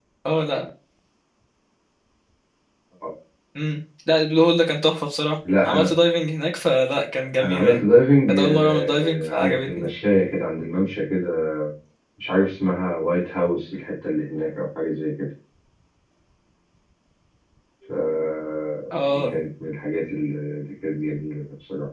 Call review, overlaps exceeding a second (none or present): present